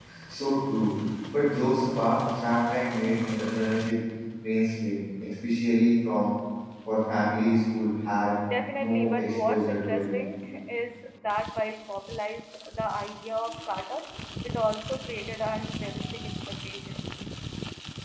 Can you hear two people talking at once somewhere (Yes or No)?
Yes